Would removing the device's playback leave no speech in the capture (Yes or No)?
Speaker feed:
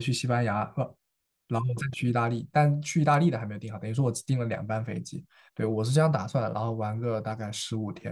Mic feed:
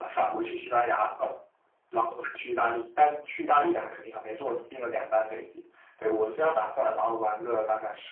Yes